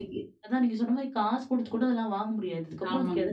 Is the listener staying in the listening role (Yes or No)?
Yes